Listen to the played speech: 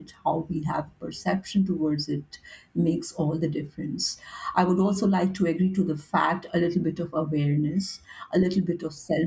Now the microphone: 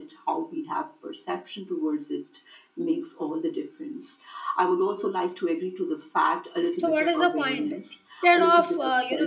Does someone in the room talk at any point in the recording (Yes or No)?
Yes